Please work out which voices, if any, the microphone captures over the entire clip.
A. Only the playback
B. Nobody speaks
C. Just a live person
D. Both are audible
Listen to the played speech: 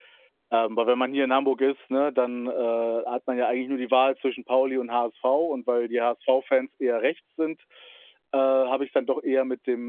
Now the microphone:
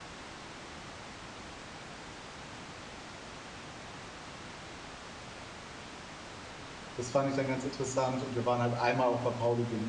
C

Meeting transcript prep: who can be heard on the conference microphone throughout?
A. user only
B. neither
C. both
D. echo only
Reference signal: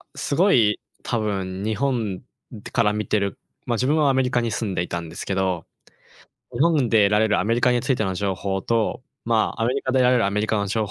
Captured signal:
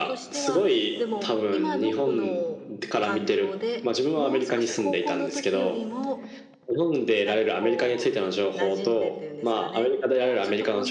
C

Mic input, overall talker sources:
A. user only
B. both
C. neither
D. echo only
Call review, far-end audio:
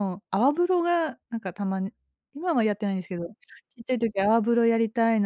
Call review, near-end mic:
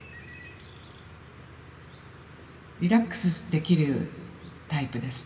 A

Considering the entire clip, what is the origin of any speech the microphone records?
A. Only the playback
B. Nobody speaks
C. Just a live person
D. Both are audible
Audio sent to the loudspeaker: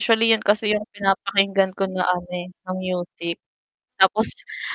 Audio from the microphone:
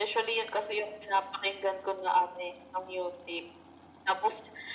A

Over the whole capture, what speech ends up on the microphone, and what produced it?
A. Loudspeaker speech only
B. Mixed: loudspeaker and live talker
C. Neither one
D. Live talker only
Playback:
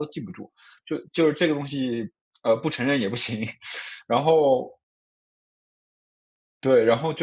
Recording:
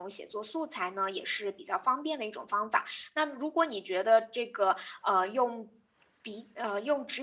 D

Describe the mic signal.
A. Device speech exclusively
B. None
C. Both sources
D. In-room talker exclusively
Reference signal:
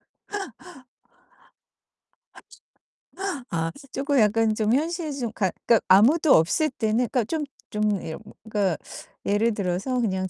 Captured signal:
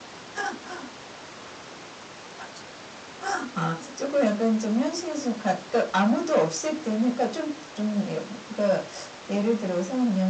A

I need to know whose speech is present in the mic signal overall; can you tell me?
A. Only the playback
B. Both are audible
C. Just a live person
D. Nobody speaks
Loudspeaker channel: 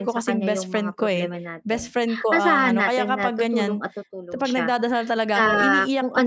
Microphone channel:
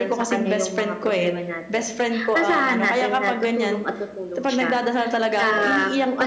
A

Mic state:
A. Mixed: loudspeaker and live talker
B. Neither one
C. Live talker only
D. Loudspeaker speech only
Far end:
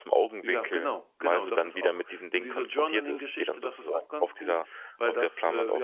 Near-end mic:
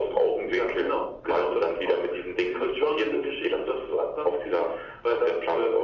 D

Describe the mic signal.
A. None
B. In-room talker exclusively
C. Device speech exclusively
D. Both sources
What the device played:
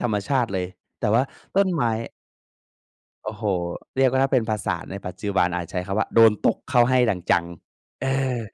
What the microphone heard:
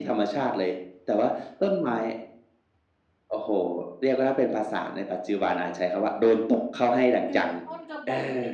D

